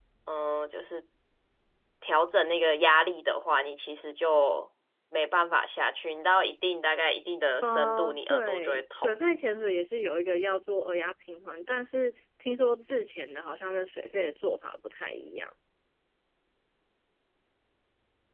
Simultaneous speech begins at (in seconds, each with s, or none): 7.6 s